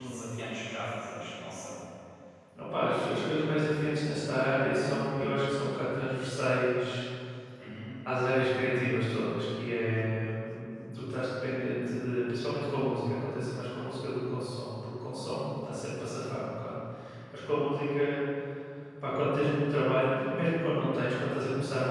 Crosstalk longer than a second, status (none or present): none